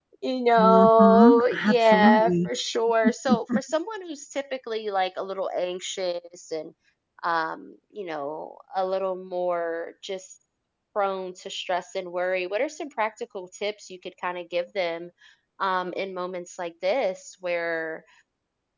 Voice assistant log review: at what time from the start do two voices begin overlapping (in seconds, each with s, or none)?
0.6 s